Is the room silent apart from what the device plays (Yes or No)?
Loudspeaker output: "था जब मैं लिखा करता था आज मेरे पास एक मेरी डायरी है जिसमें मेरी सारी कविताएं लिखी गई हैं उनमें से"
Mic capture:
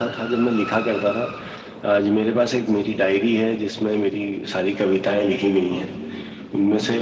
Yes